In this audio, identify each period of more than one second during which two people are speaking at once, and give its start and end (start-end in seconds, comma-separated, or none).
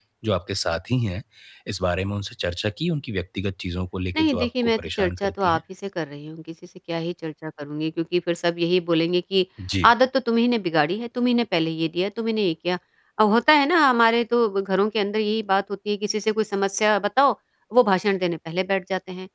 4.2-5.6